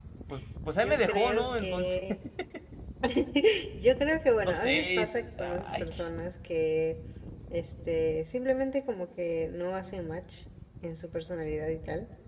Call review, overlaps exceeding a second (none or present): present